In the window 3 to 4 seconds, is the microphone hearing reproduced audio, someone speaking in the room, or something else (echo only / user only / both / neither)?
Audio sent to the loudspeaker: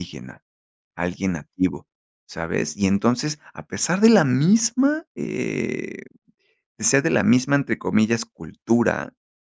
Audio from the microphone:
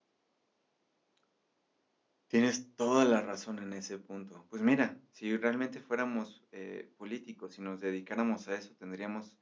user only